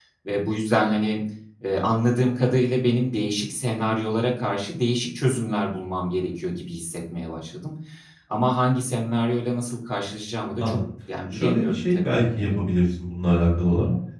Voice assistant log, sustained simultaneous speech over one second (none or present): present